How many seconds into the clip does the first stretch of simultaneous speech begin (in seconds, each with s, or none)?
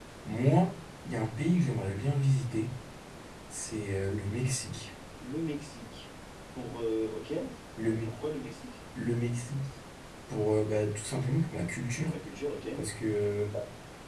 none